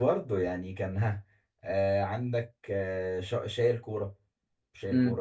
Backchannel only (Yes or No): No